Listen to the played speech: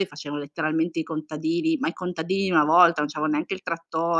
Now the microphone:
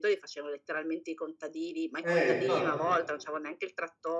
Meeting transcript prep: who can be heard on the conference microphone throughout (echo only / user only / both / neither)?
both